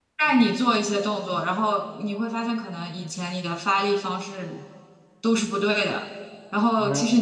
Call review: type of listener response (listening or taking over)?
listening